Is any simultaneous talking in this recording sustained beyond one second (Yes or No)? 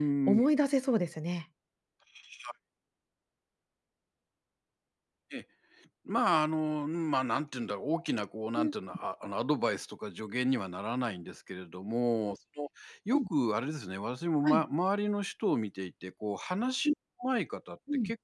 No